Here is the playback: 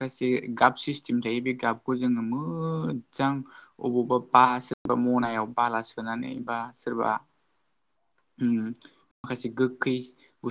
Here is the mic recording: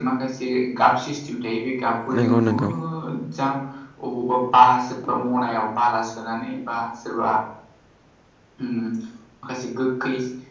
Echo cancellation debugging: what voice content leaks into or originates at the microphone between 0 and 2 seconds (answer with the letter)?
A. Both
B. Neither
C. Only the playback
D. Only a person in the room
C